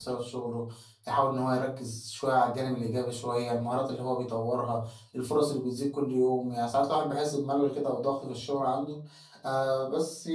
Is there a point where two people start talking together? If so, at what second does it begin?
none

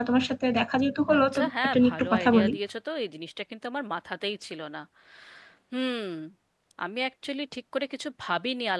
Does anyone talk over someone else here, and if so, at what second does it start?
1 s

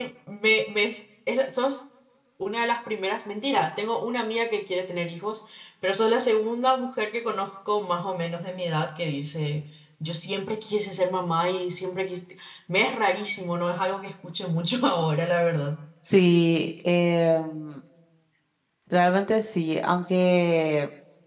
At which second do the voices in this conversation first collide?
none

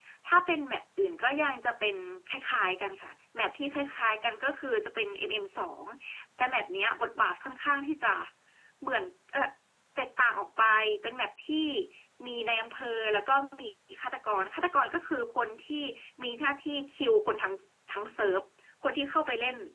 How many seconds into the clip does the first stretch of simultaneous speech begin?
none

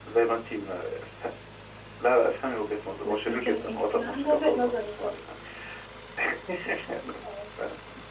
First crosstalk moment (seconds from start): 3 s

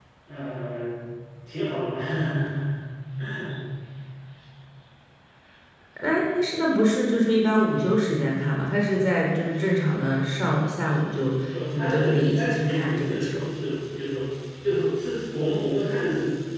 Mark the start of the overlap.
12 s

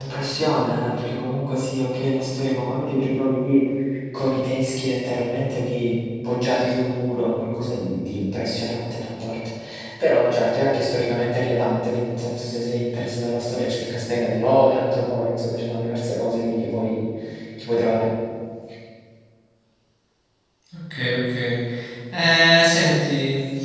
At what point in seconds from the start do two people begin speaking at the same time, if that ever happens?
none

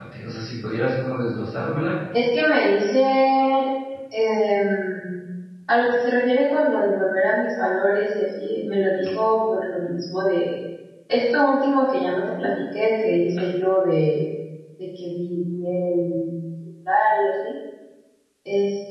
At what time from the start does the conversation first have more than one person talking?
none

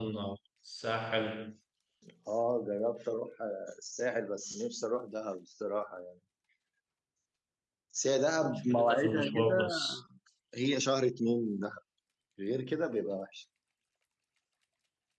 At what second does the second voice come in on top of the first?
9 s

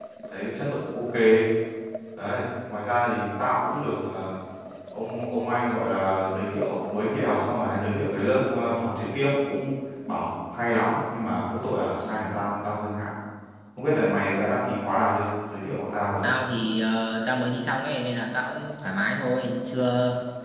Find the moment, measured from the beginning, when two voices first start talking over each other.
none

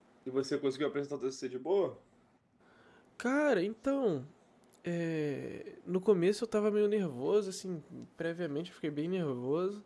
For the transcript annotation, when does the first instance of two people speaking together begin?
none

